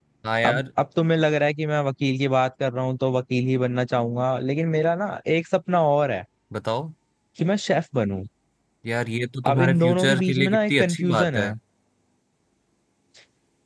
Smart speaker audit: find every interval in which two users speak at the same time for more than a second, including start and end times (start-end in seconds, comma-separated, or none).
9.5-11.5